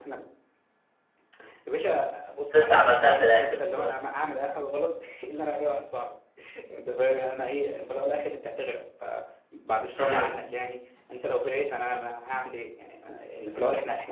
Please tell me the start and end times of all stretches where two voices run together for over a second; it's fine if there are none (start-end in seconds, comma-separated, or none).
2.5-4.0